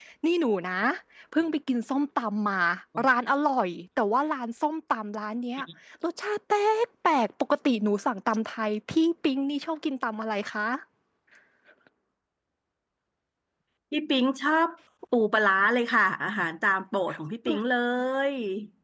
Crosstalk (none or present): none